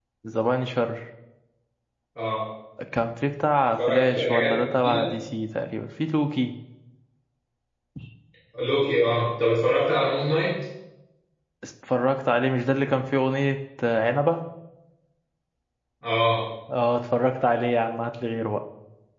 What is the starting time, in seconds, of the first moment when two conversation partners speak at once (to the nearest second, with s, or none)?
4 s